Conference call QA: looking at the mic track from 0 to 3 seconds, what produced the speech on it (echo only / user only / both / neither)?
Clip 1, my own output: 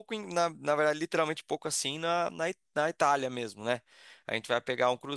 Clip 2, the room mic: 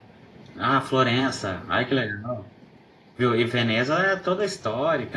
user only